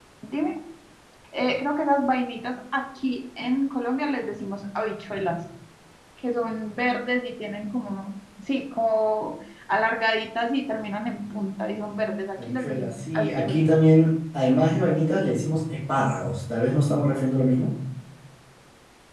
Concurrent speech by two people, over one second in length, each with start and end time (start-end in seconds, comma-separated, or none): 12.4-13.7